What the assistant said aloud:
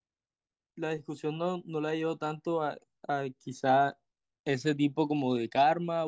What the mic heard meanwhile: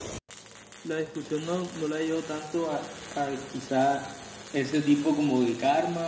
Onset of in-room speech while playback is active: none

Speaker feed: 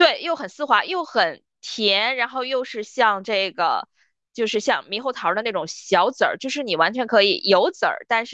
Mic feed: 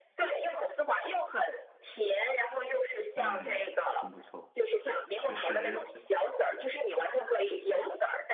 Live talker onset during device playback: 3.1 s

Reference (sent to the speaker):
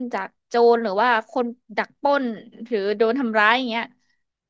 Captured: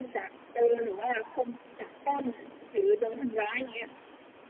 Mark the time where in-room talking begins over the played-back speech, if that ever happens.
none

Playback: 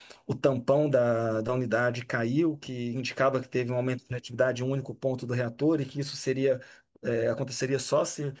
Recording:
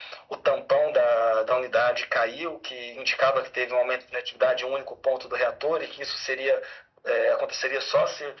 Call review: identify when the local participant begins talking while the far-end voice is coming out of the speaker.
none

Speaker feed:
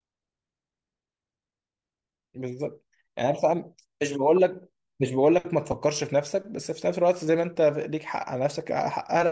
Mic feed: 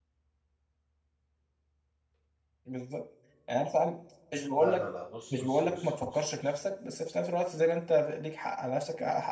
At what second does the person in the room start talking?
4.6 s

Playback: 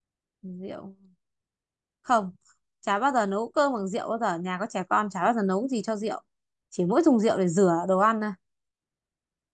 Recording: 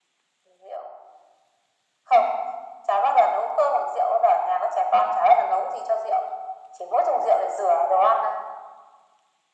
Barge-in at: none

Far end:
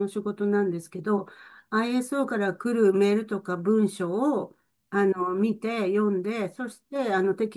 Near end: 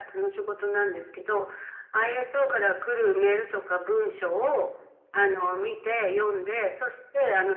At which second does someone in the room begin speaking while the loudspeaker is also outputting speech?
none

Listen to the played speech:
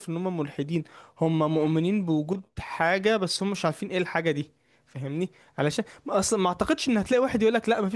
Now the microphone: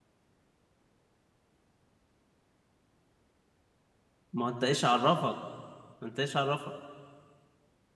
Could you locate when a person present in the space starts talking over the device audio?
4.3 s

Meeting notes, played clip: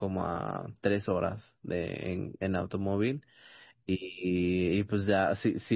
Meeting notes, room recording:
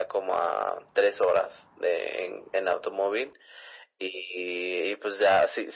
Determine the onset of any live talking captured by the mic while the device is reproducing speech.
none

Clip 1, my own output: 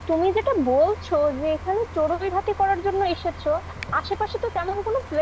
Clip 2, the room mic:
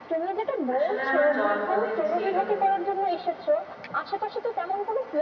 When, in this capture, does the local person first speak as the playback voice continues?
0.8 s

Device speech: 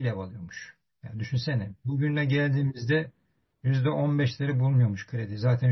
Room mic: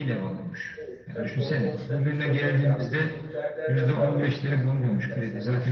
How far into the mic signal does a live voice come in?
0.7 s

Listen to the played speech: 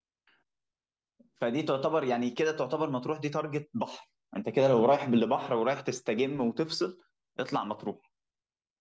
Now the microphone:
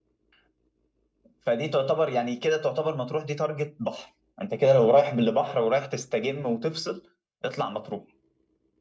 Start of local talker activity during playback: none

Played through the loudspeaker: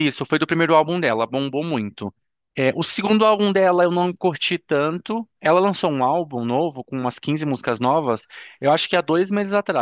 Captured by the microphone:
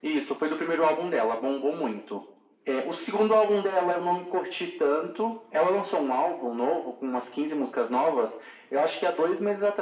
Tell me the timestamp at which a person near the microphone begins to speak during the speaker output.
none

